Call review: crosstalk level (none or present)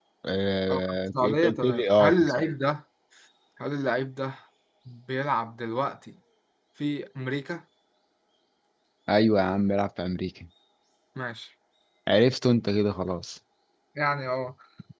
present